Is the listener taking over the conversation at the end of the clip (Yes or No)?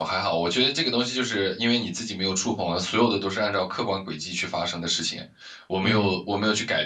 No